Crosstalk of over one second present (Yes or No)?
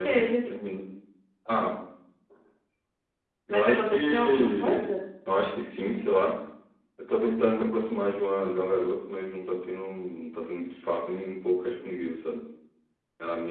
Yes